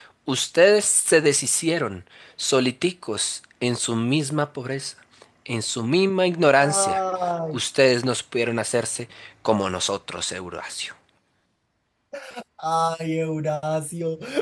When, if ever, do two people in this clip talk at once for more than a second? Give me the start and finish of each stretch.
none

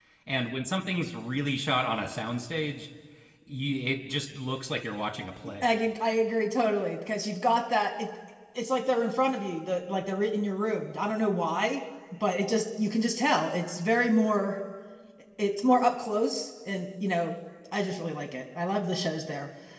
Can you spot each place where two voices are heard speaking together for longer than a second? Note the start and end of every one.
none

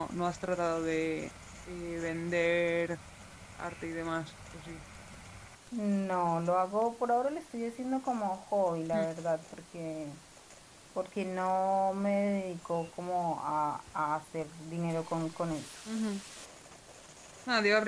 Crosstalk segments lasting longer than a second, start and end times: none

